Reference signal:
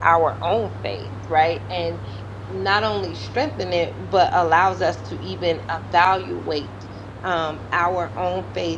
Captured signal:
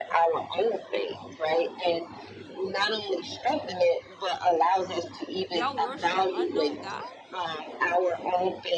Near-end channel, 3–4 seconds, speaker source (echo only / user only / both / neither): echo only